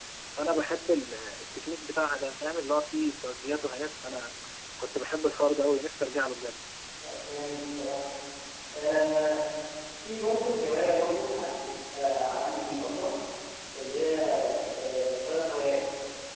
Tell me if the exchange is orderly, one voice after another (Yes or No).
Yes